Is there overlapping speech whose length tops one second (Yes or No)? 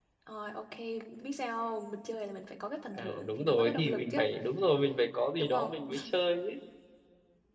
Yes